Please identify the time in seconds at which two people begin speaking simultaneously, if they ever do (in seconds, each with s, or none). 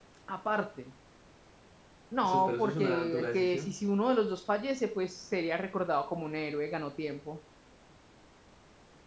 2.2 s